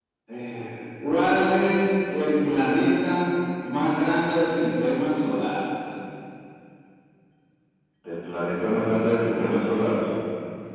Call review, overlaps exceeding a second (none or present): none